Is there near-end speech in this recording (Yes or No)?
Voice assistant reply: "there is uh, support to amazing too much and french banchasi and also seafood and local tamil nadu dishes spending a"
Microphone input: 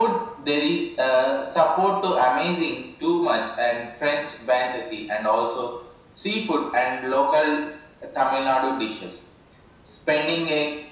No